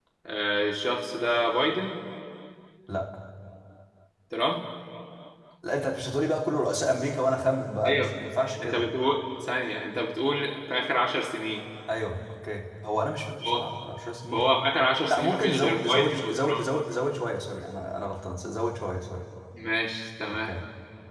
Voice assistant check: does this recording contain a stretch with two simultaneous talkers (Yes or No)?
Yes